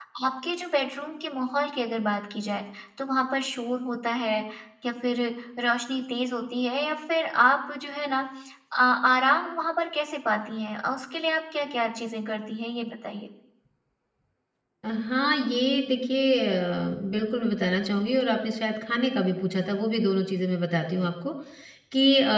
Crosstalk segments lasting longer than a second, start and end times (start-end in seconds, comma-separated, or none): none